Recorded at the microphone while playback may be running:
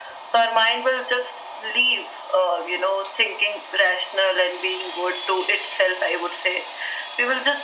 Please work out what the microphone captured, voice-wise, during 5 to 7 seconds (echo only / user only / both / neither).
echo only